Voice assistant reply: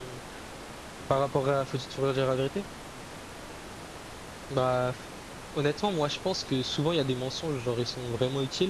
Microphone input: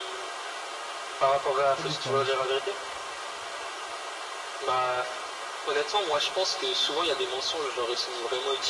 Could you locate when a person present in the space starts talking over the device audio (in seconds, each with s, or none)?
1.6 s